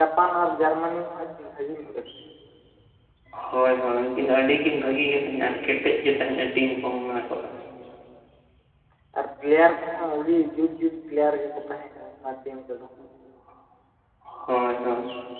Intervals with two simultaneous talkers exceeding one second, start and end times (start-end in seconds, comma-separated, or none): none